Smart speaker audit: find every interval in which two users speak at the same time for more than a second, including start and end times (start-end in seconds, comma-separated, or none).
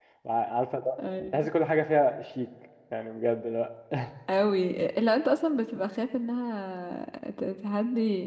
none